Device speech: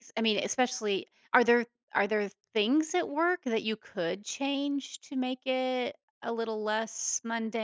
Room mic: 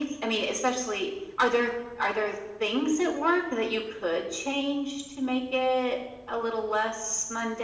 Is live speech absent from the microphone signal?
Yes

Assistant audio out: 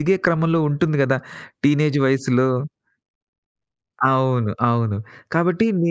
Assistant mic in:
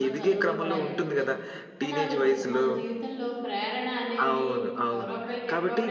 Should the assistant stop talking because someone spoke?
Yes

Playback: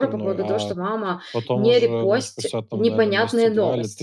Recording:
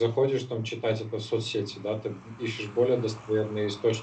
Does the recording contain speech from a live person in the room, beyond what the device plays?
Yes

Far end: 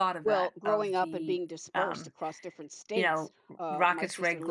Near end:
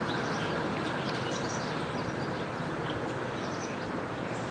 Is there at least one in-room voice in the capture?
No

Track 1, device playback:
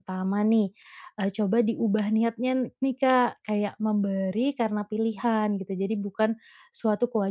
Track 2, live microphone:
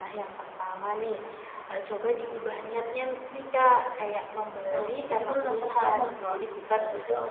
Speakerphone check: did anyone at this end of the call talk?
Yes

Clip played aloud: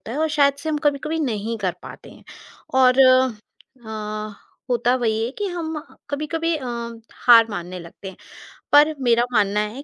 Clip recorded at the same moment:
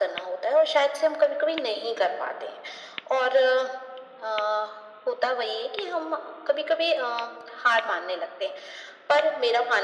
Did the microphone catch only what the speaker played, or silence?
Yes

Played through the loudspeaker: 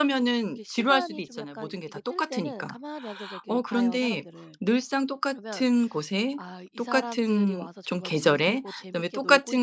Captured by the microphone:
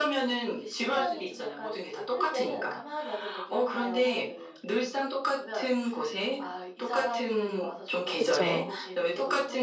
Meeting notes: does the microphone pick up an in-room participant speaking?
Yes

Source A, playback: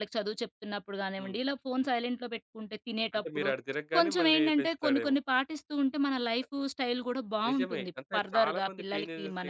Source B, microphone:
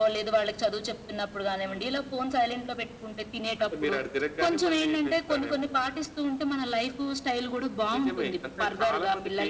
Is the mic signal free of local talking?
Yes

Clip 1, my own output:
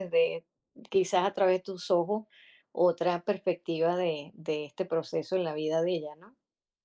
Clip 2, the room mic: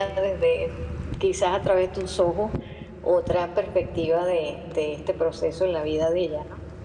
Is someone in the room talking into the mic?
No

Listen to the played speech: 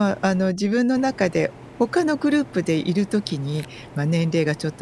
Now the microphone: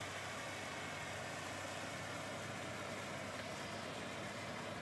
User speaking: No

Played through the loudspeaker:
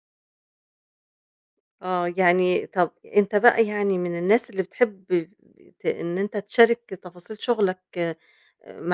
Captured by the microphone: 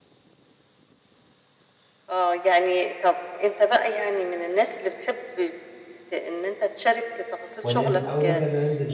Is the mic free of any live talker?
No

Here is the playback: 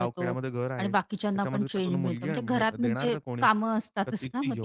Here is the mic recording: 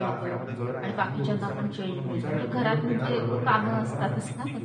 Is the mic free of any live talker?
No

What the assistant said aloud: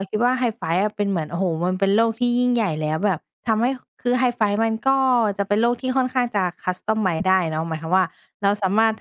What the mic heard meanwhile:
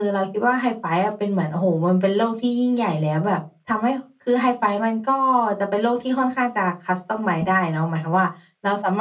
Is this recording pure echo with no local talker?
Yes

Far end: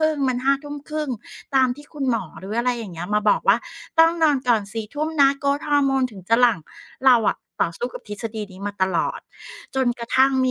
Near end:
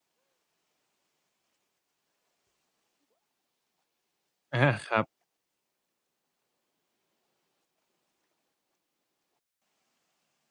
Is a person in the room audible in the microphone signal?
Yes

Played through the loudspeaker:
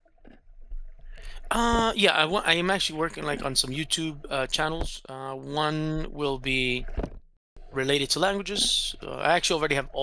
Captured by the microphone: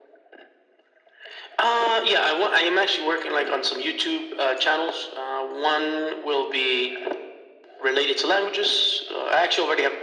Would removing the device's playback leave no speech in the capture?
Yes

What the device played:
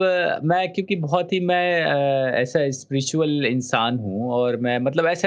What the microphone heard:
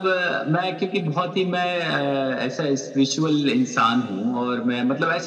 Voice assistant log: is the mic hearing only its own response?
Yes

